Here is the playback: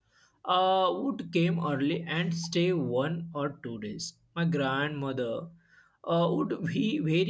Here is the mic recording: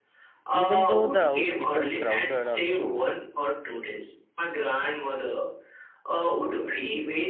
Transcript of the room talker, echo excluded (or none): Even though the house became crowded also,